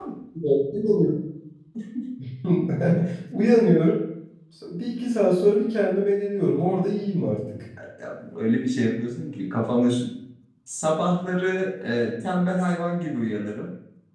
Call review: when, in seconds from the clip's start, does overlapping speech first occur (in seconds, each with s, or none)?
none